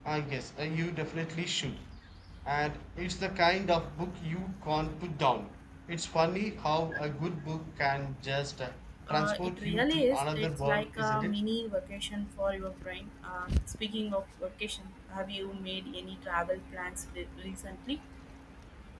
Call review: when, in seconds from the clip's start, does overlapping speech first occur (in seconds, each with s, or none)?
9.1 s